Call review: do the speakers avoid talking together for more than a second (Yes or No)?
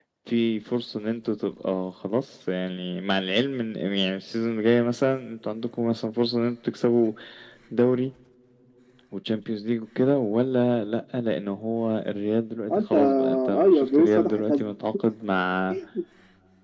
No